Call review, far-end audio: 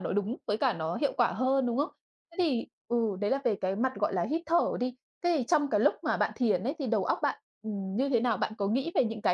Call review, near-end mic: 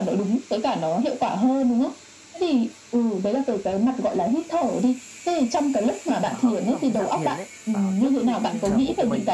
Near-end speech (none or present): present